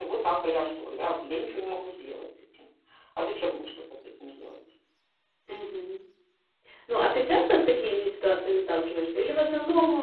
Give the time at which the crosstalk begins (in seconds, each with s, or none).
none